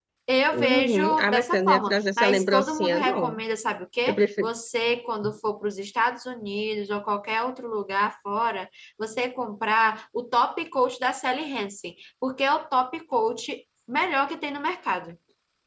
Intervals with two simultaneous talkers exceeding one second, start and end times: 0.5-3.4

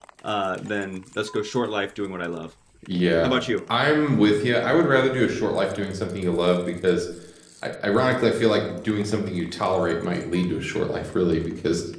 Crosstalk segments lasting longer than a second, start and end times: none

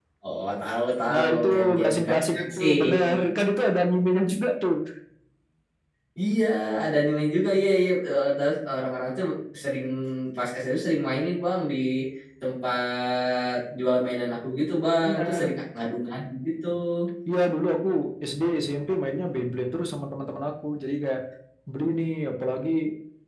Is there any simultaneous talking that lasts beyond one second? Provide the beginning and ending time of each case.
1.1-3.0

